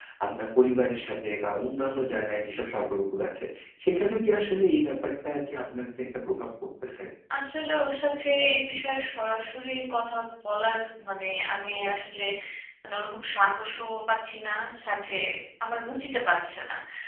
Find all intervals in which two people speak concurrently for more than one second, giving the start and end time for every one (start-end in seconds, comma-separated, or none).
none